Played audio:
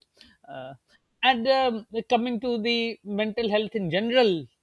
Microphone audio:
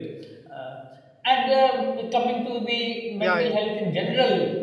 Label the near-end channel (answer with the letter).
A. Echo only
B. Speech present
B